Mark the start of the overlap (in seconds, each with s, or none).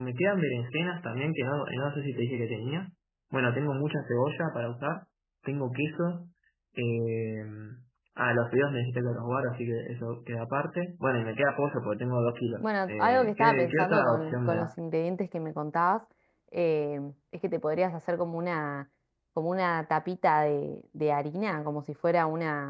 12.6 s